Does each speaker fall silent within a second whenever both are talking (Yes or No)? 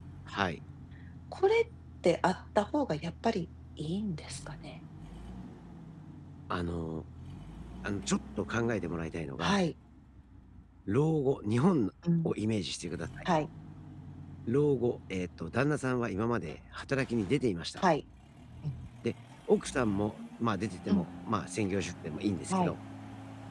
Yes